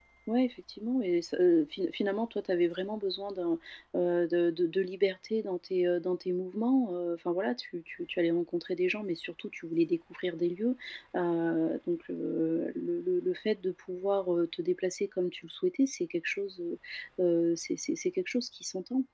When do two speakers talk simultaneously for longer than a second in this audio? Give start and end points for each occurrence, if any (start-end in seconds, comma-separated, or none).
none